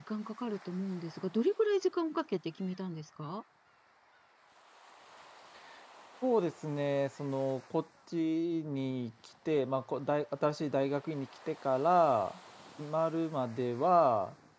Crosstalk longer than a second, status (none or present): none